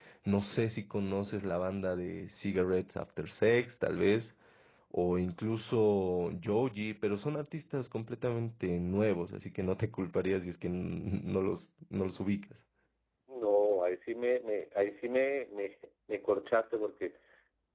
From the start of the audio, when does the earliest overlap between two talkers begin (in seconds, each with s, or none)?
none